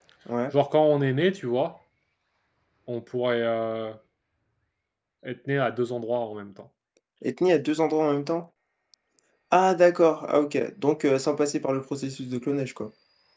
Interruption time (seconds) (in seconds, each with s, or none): none